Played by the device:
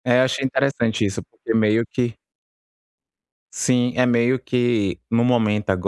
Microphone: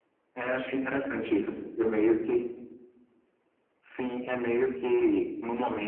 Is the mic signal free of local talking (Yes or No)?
Yes